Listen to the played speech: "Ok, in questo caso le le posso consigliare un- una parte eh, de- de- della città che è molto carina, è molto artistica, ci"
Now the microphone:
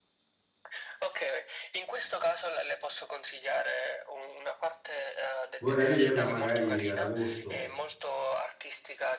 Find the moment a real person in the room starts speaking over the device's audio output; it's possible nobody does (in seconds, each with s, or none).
5.6 s